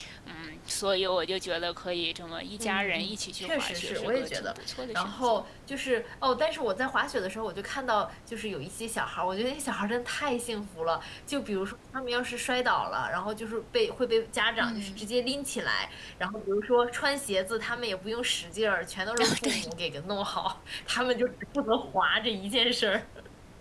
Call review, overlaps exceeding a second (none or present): present